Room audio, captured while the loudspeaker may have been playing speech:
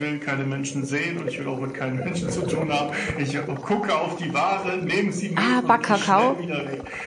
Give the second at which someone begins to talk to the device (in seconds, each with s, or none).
5.4 s